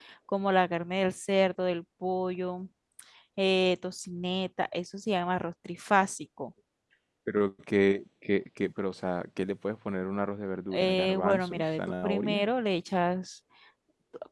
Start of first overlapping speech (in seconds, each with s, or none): 10.7 s